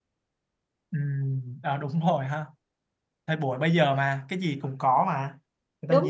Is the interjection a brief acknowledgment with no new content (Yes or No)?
Yes